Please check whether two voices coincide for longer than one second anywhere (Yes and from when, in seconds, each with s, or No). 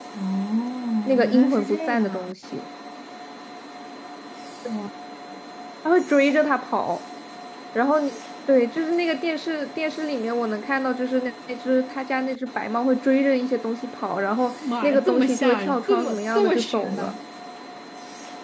Yes, from 1.1 s